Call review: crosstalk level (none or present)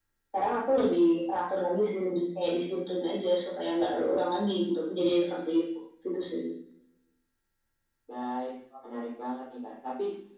none